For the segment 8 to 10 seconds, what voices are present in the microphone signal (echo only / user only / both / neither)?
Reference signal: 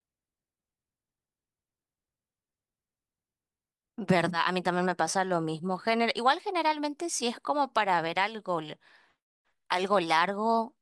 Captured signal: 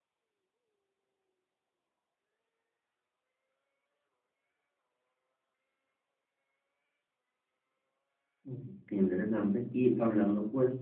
user only